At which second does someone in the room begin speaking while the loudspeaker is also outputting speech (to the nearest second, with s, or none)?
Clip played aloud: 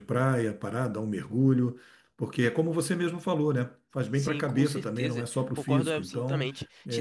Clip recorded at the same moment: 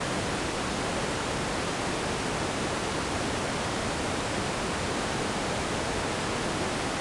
none